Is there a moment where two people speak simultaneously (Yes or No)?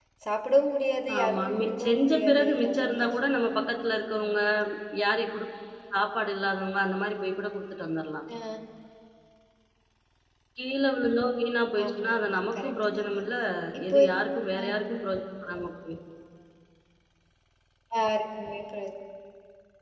Yes